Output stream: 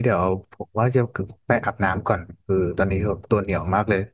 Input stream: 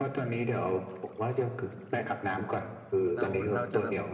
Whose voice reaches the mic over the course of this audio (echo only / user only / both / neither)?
both